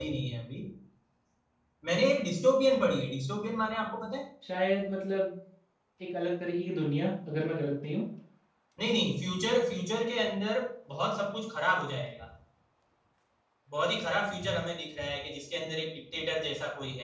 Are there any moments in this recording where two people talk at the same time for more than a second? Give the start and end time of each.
none

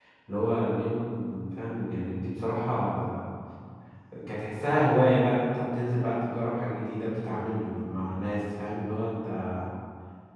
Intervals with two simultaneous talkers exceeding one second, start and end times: none

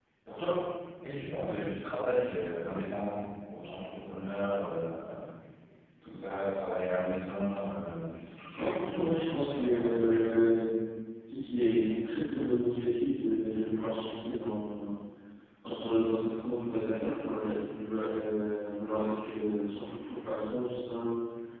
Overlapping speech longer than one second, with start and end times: 8.6-10.1

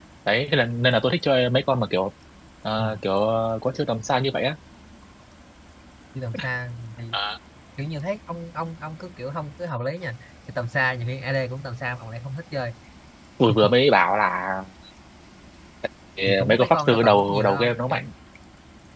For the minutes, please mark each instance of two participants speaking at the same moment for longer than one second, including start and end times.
16.2-18.1

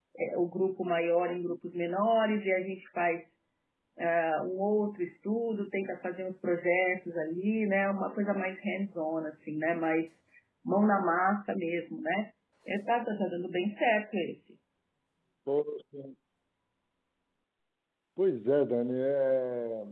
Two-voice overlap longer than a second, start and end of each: none

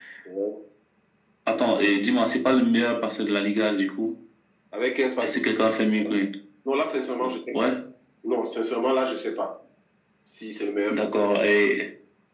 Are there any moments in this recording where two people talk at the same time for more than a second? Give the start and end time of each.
none

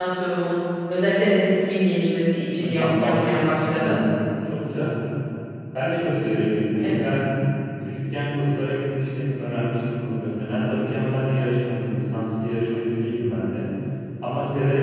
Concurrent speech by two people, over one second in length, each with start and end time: 2.6-4.0

